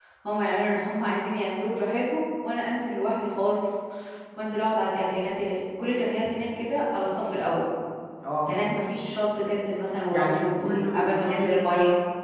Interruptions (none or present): present